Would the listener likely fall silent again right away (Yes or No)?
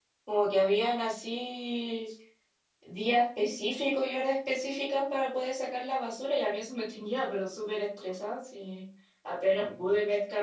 Yes